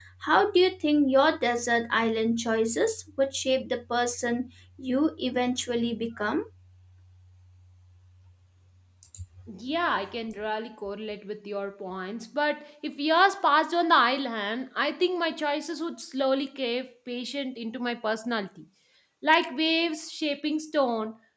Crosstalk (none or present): none